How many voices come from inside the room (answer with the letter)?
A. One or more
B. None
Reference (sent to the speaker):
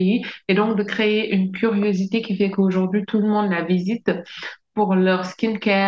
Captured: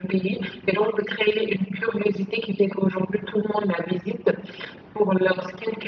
B